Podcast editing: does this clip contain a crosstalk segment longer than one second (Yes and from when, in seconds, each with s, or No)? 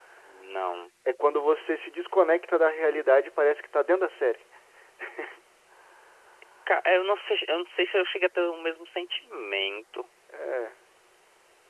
No